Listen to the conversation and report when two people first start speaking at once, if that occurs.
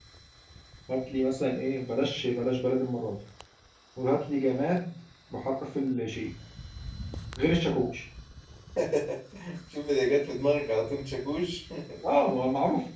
none

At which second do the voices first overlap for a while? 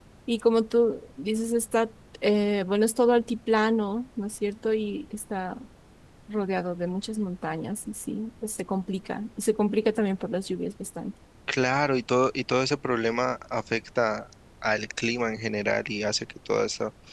none

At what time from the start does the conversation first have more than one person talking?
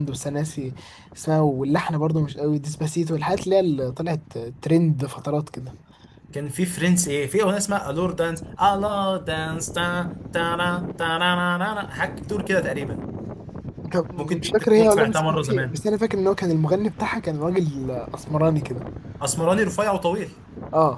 14 s

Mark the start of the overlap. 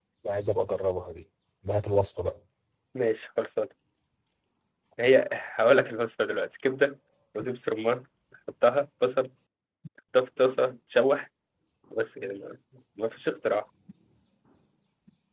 none

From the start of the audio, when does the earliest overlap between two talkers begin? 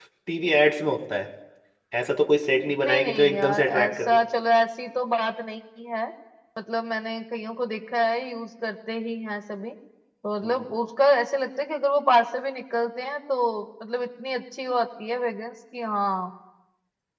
3 s

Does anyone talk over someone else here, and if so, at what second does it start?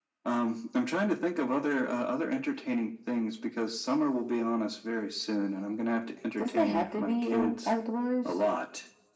6 s

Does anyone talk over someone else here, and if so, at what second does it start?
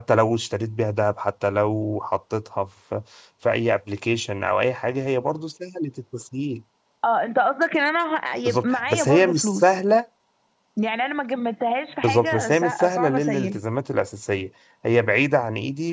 8 s

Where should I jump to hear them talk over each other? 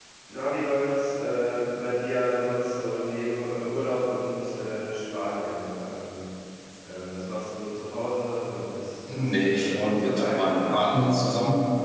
9 s

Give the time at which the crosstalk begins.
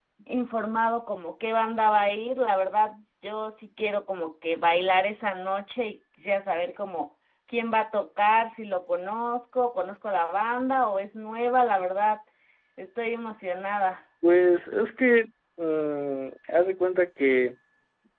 none

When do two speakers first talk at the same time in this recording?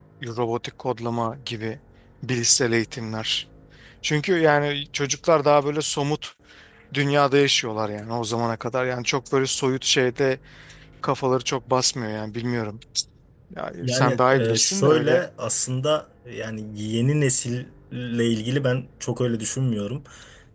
14 s

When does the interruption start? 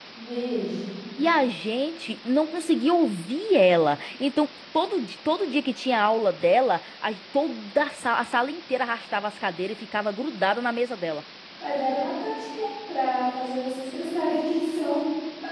none

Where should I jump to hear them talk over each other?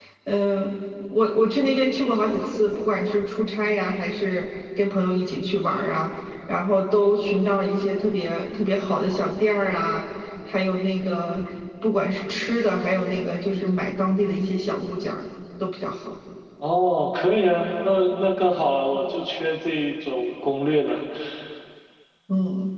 none

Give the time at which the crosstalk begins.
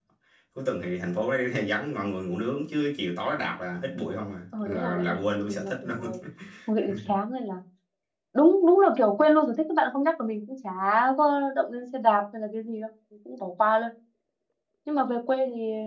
5 s

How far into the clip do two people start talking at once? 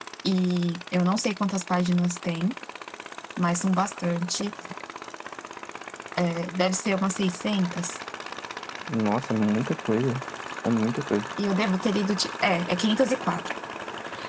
none

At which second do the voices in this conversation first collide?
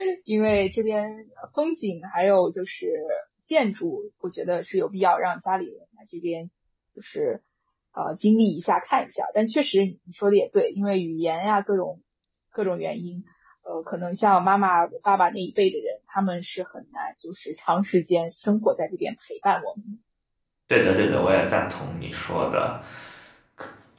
none

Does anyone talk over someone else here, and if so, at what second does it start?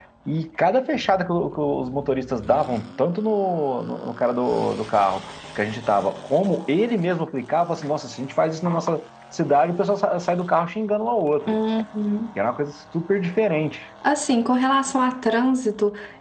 none

